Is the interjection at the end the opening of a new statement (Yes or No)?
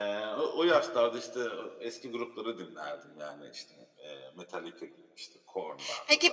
Yes